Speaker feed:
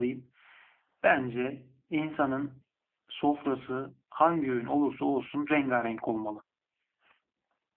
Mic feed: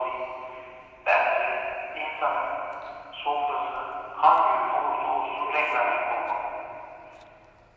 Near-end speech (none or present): none